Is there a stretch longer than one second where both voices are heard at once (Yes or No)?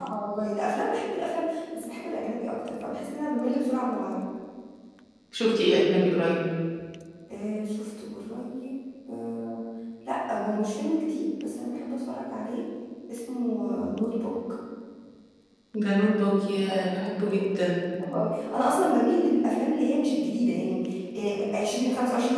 No